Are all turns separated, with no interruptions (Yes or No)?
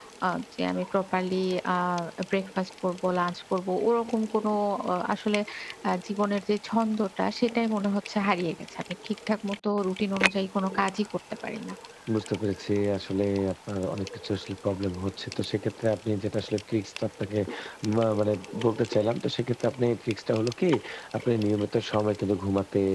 Yes